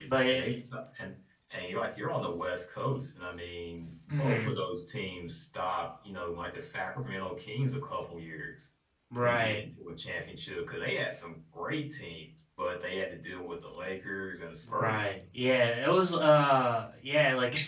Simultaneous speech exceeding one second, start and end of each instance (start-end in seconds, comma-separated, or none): none